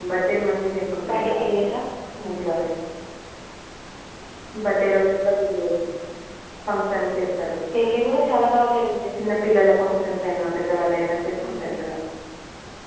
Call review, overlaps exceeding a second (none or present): none